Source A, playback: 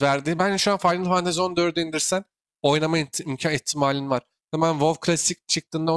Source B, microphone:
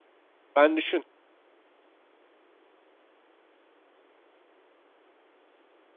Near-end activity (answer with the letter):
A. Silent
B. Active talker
B